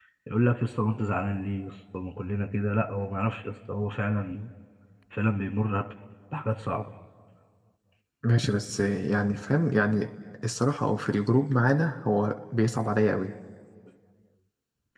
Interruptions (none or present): none